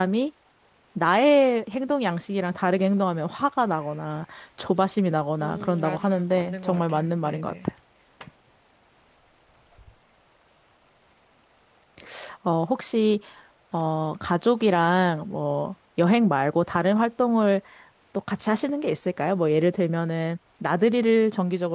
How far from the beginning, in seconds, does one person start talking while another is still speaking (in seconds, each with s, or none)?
5.4 s